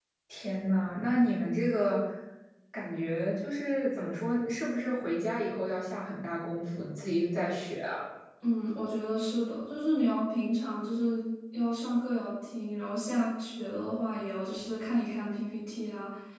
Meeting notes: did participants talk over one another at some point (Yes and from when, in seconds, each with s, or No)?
No